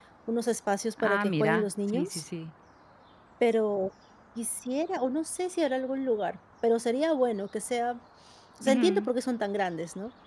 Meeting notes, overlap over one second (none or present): present